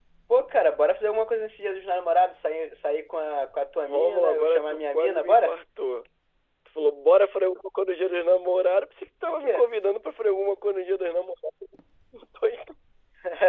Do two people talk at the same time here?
Yes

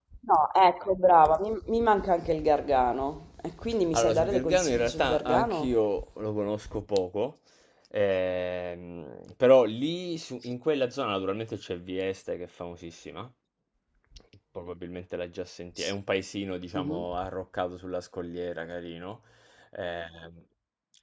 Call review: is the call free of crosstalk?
No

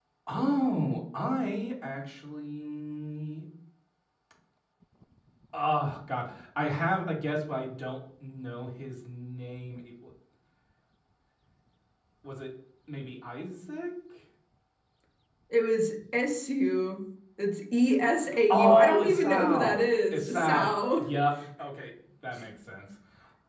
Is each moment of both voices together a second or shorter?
No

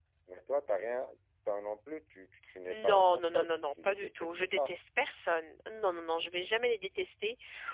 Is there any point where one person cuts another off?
Yes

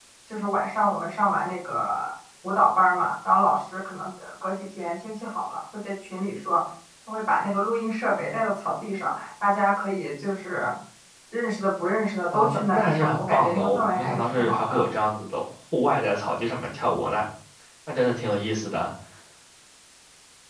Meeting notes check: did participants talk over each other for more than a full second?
Yes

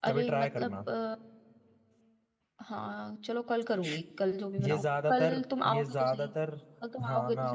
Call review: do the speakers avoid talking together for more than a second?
No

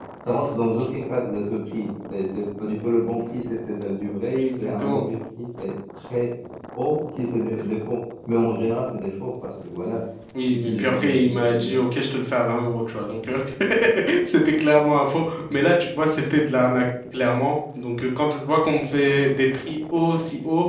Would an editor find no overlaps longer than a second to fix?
No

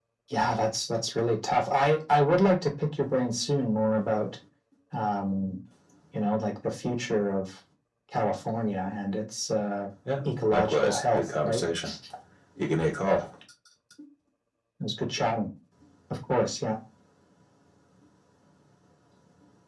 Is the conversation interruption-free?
No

